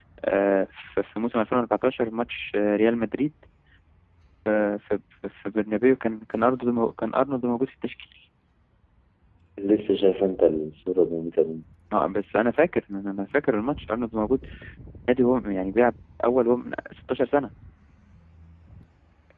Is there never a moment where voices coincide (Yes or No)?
Yes